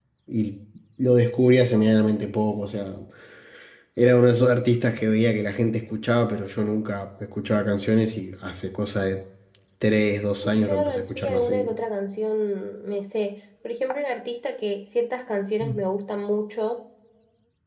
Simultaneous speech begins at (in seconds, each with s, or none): 10.4 s